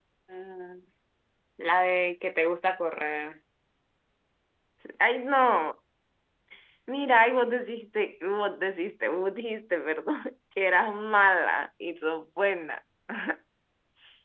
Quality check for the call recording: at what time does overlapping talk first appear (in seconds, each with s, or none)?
none